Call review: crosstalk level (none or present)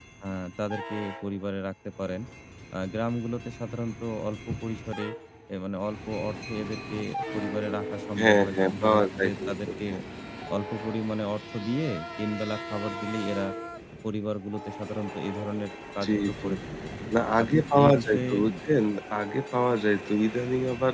present